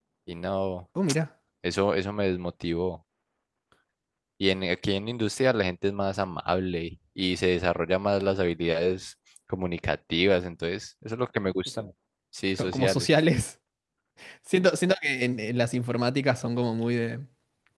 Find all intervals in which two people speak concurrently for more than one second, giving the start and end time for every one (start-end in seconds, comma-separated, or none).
none